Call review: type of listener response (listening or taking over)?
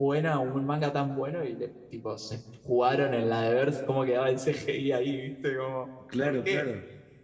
taking over